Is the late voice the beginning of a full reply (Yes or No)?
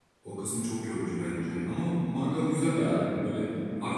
No